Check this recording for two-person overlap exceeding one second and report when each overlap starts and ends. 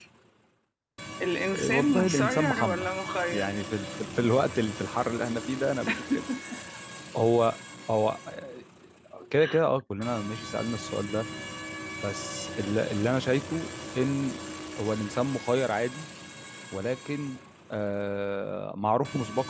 1.5-2.9

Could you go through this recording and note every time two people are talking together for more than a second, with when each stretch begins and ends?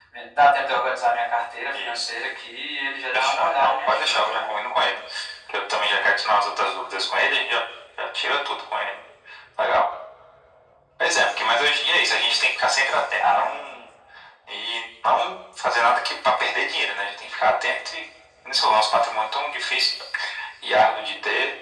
3.1-4.5

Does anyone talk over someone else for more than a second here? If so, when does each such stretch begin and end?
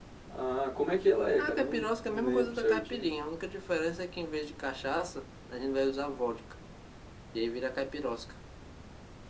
1.4-3.2

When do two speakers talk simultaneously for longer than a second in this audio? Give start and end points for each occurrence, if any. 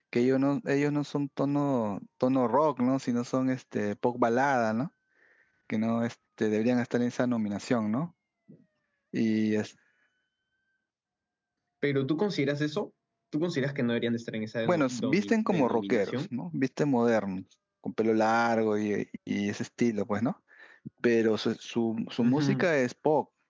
14.6-16.1

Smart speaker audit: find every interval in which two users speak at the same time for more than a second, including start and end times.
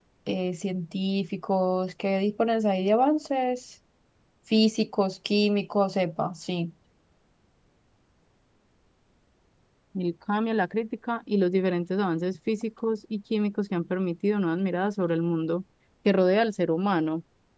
none

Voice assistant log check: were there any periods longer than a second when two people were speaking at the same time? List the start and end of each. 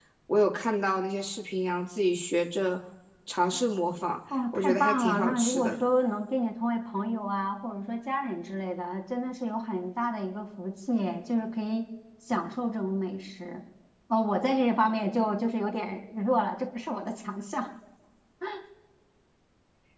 4.5-5.7

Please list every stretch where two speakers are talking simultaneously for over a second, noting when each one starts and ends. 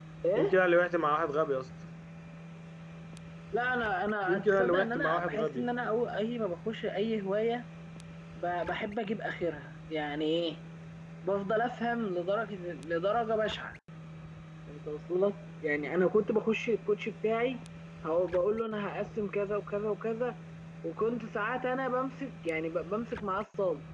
4.3-5.7

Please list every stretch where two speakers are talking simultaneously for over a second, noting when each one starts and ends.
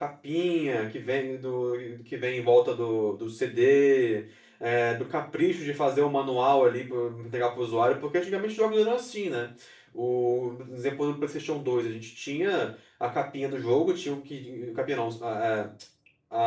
none

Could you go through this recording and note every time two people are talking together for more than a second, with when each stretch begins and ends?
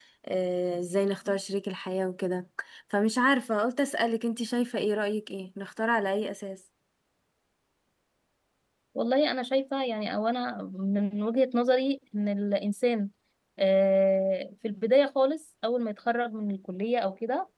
none

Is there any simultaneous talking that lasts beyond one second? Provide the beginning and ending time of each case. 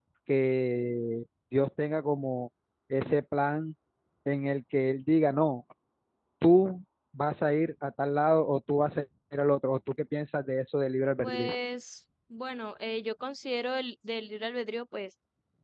none

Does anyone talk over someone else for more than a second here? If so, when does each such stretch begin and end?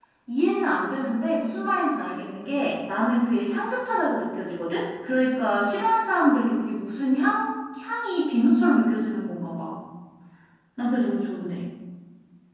none

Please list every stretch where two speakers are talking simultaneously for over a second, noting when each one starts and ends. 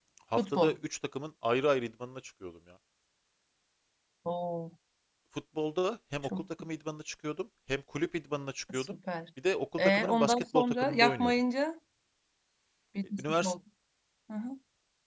9.8-11.3

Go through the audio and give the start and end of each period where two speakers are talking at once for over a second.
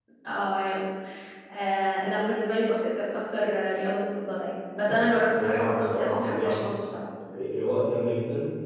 5.2-6.6

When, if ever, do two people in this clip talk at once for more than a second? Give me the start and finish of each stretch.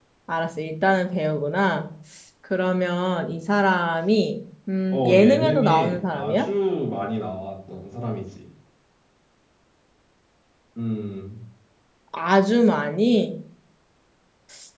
4.9-6.5

